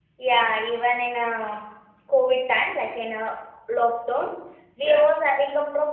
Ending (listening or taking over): listening